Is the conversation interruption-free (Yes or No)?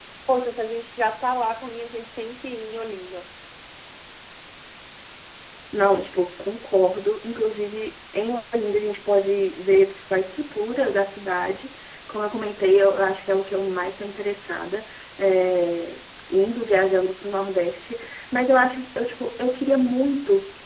Yes